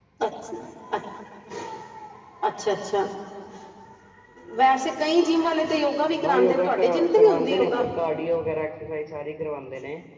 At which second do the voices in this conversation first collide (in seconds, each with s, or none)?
6.2 s